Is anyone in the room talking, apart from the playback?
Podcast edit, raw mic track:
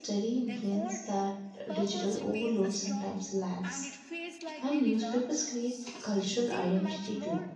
Yes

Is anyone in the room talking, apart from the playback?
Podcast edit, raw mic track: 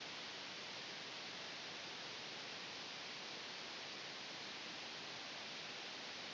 No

